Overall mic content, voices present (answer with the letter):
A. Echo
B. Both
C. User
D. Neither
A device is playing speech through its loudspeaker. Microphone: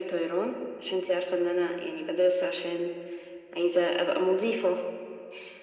A